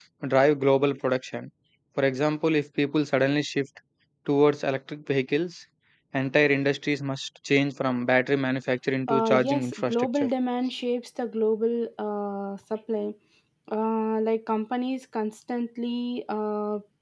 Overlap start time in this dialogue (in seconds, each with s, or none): 9.1 s